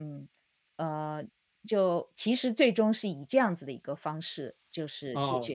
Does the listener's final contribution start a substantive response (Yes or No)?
Yes